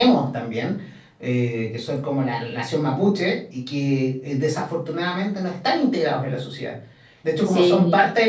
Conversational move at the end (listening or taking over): listening